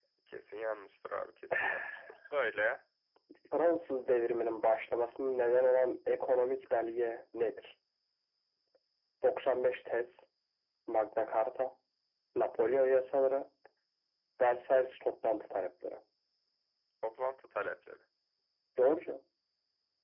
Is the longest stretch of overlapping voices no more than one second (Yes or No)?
Yes